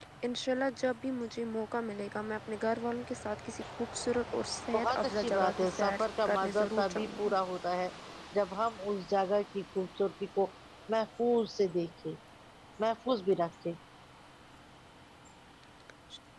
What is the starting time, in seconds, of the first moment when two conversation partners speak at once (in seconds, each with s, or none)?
4.7 s